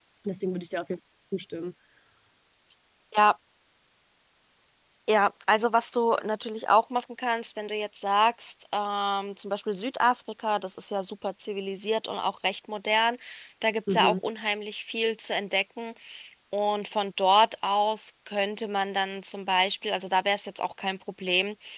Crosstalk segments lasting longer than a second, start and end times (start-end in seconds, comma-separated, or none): none